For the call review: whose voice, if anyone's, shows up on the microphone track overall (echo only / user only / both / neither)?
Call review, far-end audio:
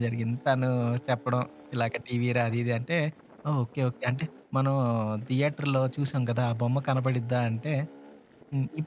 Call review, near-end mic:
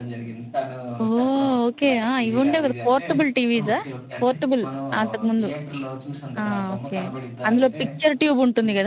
both